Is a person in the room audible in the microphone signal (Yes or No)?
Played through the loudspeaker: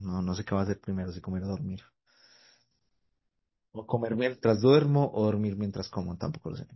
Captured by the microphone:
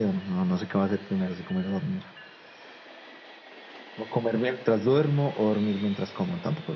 No